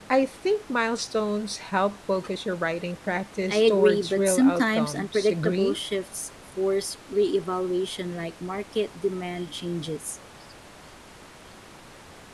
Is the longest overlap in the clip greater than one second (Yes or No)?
Yes